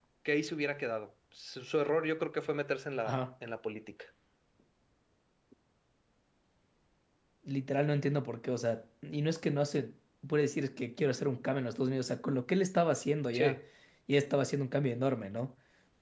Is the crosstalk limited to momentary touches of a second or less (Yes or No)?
Yes